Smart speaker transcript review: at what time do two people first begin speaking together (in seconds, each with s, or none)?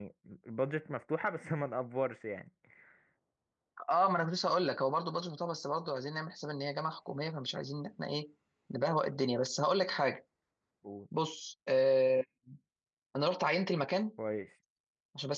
none